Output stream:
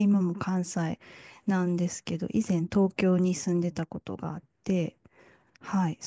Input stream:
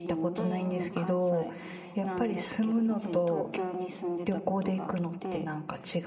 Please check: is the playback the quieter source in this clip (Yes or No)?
Yes